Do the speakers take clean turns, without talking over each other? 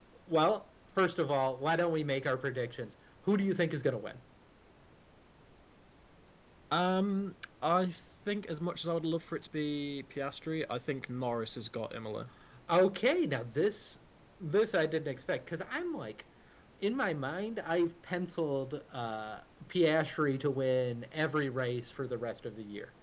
Yes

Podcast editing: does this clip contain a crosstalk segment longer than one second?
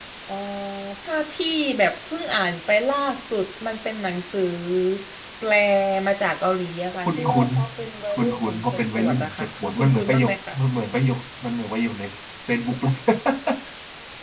Yes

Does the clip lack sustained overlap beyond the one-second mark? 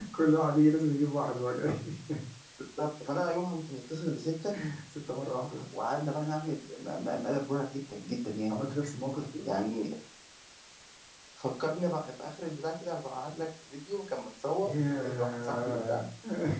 No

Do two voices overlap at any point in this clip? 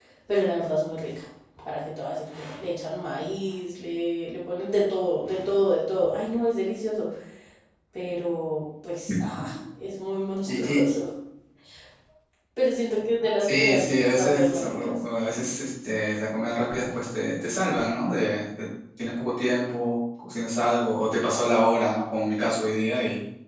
Yes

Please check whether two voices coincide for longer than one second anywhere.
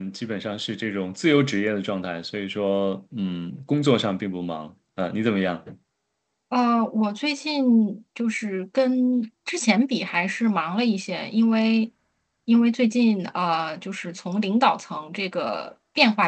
No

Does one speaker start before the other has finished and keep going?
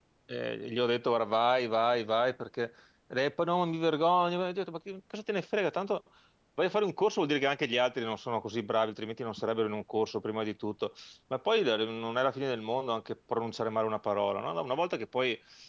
No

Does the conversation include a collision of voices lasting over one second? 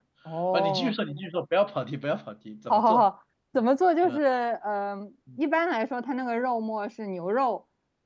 No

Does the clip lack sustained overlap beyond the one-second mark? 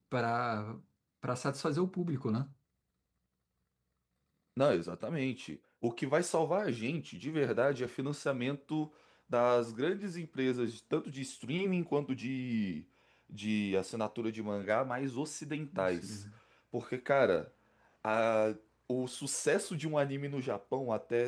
Yes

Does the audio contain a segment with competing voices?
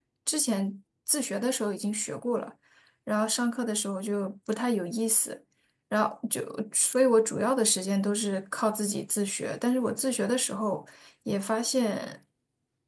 No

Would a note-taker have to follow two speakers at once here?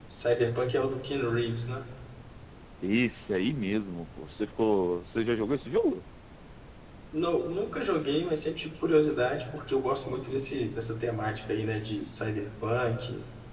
No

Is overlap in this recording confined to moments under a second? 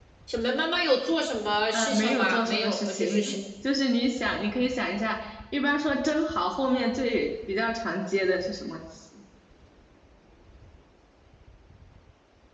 No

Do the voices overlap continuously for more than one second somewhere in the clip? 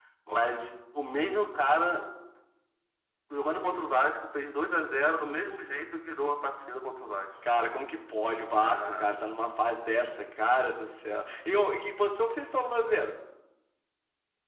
No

